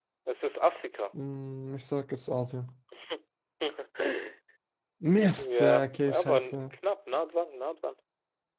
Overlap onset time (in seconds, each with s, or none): 5.4 s